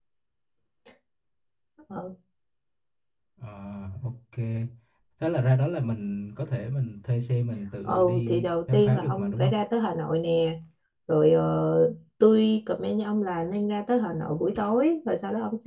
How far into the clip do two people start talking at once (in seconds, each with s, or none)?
7.9 s